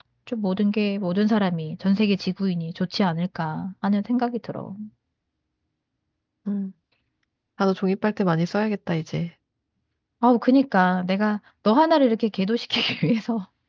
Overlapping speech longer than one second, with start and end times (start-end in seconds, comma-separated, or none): none